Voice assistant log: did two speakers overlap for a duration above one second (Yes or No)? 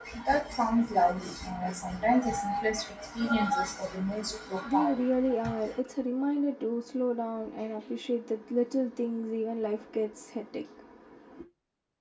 No